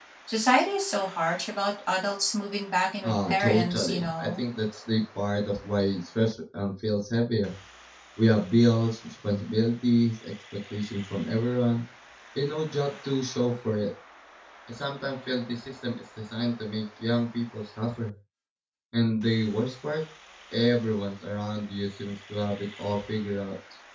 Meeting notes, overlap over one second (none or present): present